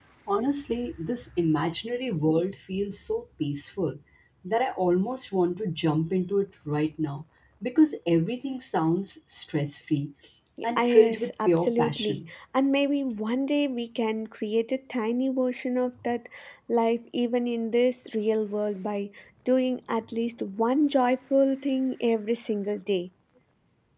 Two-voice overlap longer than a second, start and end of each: 10.8-12.2

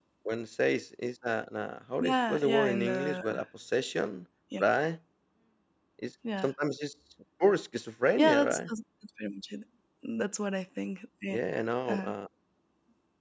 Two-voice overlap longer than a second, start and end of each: 2.0-3.4

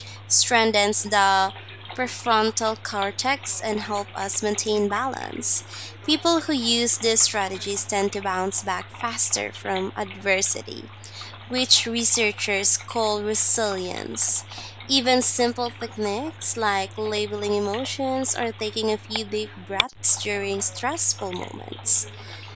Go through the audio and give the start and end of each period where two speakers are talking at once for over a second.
none

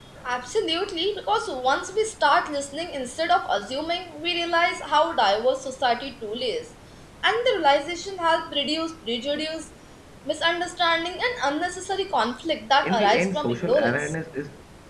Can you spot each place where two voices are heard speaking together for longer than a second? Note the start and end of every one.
12.8-14.1

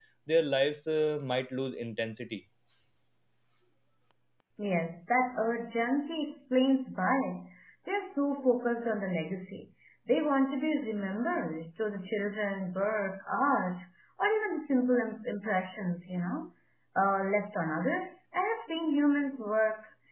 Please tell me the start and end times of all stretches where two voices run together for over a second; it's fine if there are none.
none

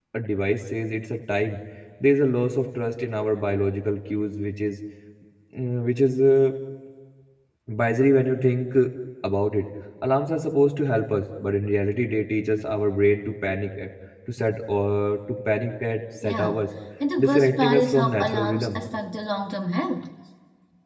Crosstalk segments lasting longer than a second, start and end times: 17.2-18.8

